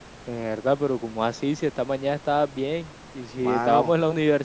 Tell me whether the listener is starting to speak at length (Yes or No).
No